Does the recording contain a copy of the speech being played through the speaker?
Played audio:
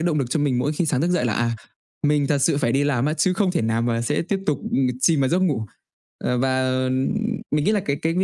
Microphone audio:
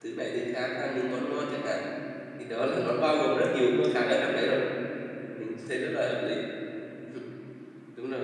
No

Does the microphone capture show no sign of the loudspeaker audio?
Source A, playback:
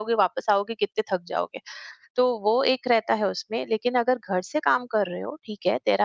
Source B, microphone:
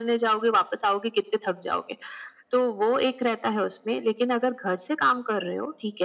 No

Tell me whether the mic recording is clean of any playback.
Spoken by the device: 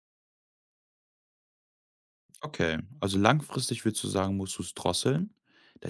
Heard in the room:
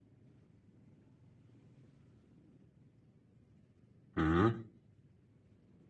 Yes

